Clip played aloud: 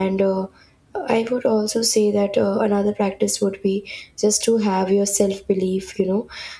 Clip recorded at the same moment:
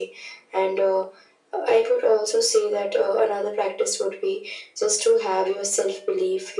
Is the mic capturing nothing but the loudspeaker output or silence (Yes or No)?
Yes